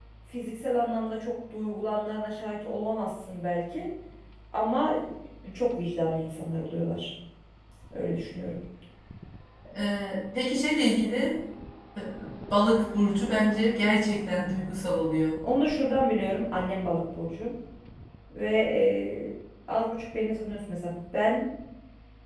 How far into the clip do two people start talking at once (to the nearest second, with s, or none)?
none